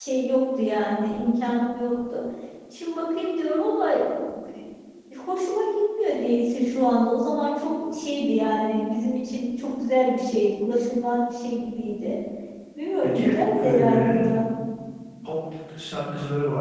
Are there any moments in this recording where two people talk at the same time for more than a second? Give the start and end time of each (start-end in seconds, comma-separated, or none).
13.0-14.3